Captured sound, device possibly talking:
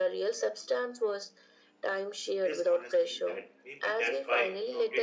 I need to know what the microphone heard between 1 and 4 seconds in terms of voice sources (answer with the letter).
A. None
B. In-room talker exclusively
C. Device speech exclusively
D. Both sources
D